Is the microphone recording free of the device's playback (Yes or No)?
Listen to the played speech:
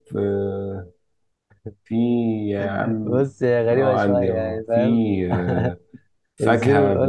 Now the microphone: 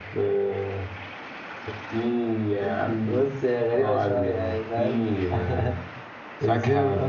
No